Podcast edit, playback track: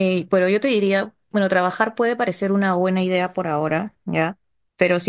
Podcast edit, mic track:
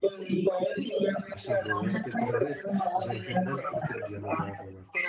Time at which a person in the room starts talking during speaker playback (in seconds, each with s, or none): 1.3 s